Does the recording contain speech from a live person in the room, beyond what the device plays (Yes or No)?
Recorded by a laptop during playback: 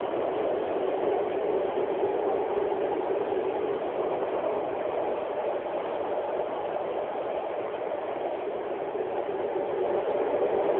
No